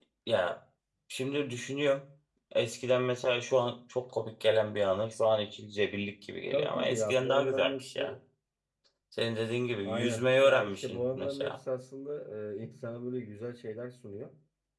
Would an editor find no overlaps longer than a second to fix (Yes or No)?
No